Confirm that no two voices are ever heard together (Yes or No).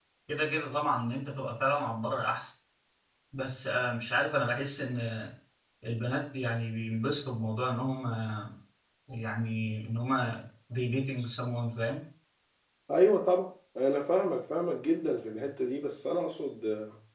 Yes